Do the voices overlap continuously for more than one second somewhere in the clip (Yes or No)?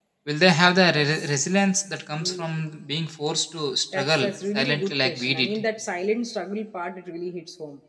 Yes